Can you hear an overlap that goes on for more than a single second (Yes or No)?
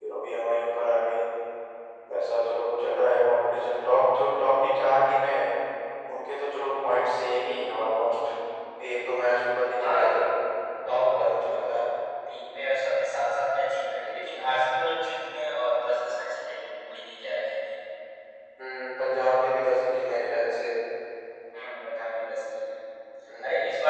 No